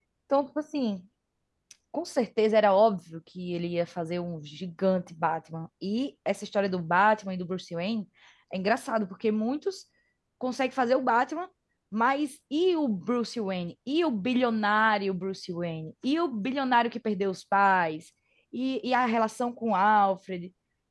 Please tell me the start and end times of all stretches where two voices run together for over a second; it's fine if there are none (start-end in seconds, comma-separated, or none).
none